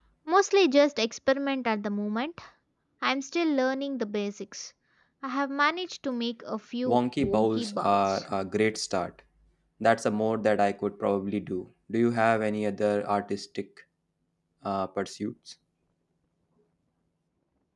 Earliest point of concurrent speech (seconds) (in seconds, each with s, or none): 6.8 s